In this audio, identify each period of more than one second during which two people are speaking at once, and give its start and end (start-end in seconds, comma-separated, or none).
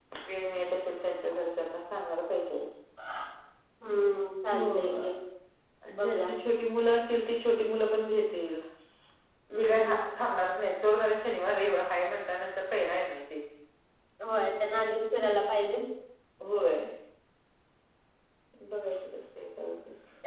none